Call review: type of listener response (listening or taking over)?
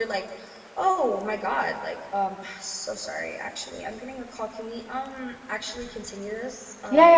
taking over